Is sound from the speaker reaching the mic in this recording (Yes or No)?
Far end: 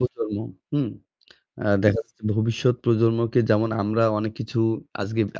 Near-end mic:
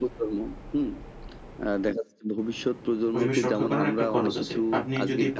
Yes